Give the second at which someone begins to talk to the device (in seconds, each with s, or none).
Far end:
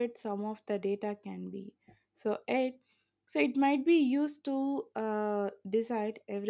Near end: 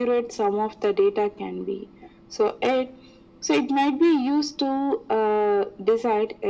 none